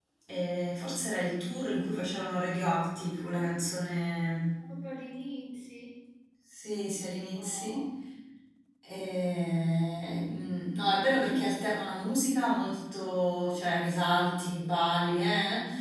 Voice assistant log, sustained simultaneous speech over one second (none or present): none